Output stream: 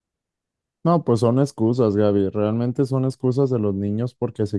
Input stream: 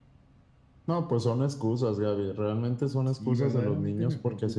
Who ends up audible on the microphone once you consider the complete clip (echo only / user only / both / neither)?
both